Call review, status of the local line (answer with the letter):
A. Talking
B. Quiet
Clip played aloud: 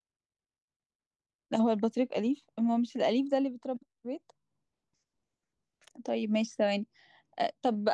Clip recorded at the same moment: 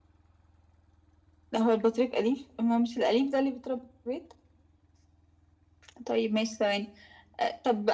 B